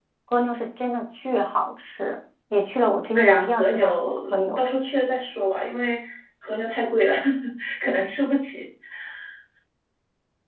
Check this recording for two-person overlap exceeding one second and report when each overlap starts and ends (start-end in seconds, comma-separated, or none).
3.1-4.6